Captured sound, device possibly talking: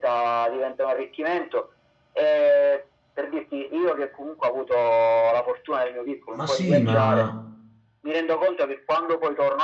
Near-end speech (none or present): present